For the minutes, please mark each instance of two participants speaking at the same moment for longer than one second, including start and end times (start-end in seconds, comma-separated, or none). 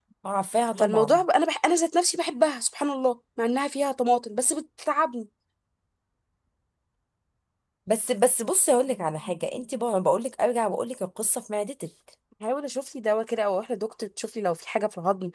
none